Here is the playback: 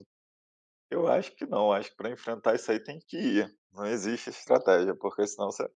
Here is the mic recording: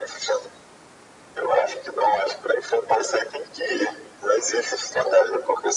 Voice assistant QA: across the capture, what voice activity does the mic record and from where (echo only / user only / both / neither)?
echo only